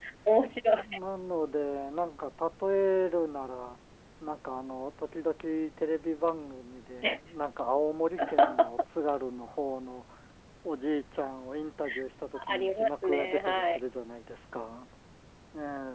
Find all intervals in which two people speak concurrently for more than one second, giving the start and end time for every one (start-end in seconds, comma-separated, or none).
12.5-13.8